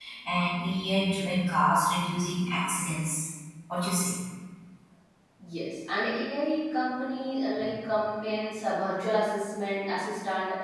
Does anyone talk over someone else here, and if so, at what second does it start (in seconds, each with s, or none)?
none